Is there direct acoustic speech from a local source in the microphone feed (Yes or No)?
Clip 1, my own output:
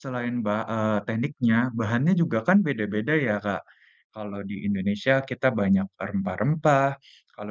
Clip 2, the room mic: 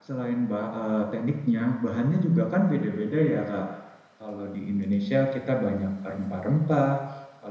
No